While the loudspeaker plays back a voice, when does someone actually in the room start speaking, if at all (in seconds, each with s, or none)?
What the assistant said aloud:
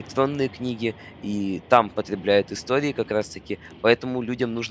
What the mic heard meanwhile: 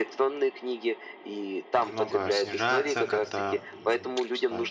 1.7 s